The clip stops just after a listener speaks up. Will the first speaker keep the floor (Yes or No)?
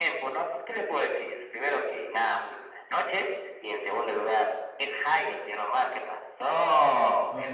No